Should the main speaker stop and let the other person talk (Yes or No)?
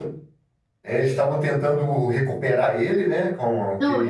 Yes